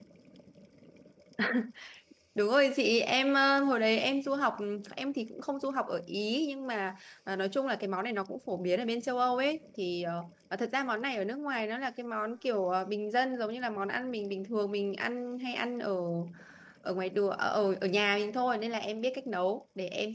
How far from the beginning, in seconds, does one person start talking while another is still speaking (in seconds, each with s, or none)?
none